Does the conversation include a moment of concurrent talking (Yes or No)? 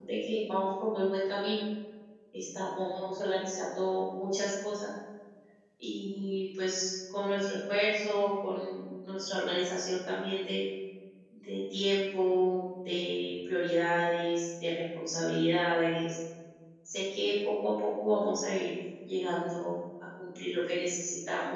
No